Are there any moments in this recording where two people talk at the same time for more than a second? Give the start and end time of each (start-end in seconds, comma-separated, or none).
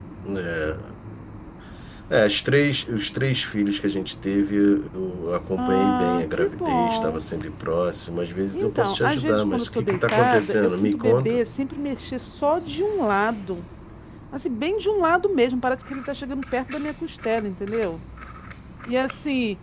5.6-7.2, 8.5-11.4